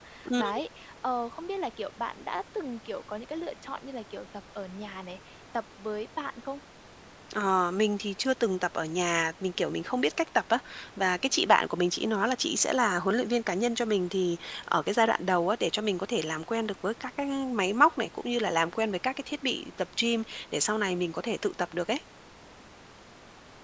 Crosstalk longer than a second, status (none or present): none